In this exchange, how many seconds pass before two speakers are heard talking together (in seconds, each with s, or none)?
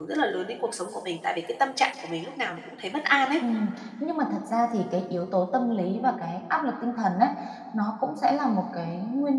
none